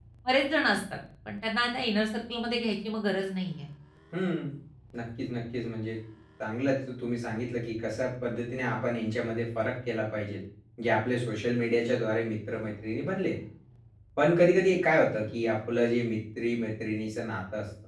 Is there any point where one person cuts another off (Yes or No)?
No